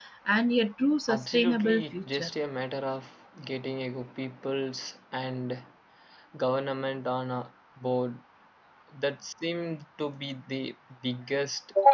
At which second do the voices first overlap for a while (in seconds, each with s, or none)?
1.1 s